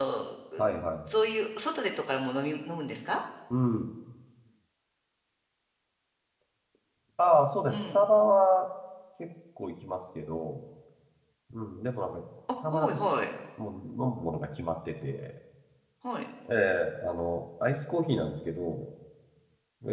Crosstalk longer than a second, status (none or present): none